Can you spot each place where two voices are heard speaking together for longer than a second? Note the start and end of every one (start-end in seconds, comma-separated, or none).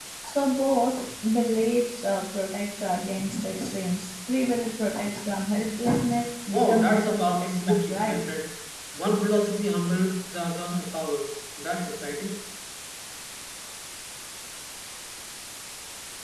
6.5-8.3